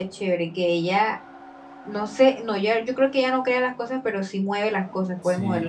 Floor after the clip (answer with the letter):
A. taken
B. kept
A